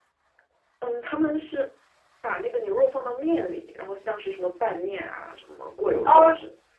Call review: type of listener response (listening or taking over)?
taking over